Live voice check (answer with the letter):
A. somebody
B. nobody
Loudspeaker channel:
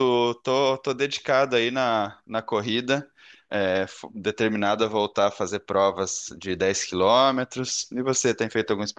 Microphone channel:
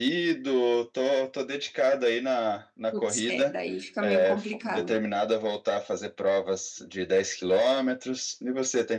A